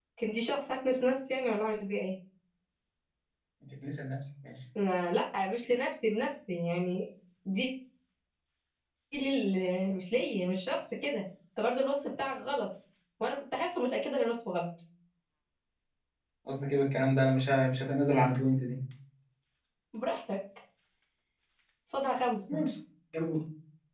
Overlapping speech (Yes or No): No